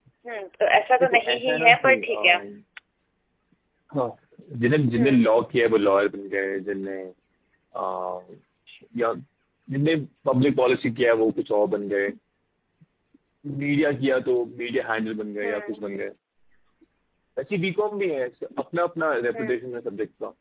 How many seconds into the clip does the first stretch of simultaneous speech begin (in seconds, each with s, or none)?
1.0 s